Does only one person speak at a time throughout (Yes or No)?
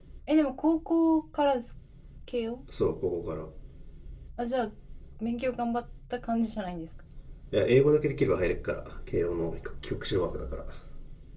Yes